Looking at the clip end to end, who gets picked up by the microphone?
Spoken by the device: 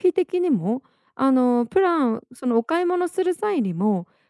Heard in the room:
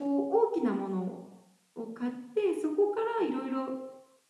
user only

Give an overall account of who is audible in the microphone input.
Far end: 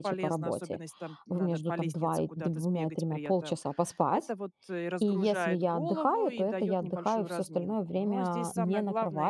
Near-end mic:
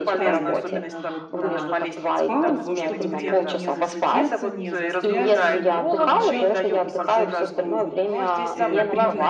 both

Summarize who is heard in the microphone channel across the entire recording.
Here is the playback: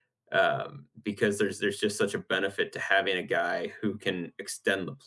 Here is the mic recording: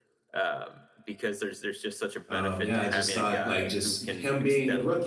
both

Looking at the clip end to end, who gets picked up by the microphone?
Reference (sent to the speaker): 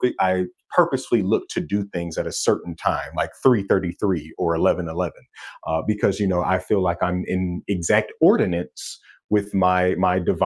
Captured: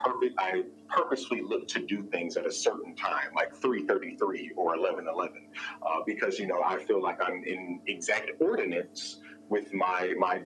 echo only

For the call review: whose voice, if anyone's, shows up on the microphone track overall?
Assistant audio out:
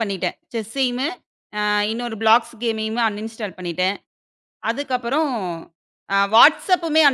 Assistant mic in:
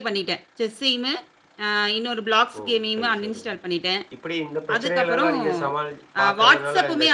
both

